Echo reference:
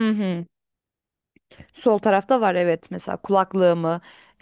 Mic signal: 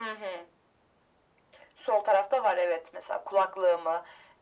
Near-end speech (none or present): none